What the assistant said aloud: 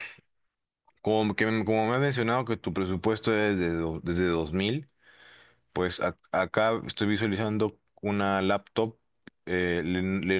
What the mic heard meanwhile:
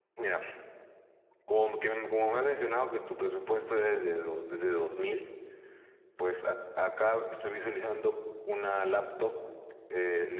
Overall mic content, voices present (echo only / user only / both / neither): echo only